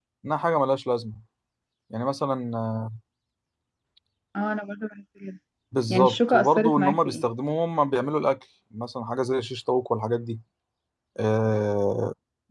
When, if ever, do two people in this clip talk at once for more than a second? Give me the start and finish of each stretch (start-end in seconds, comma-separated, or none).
5.9-7.2